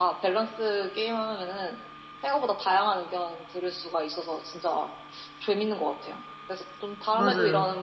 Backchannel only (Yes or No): Yes